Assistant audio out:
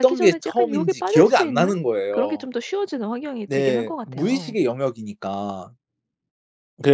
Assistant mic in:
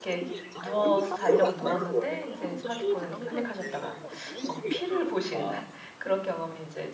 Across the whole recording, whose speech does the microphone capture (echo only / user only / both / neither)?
both